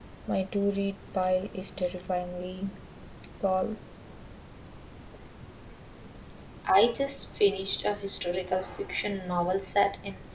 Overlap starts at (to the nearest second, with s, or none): none